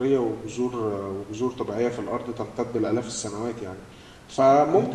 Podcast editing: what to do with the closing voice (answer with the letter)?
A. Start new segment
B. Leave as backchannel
B